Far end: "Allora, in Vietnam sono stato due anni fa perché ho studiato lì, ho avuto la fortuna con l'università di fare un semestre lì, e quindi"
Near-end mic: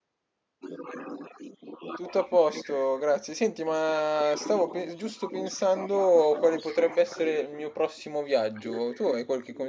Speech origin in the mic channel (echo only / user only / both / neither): both